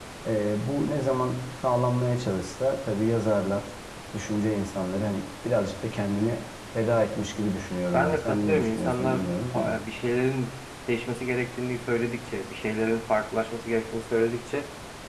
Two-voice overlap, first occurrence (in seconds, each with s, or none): 7.9 s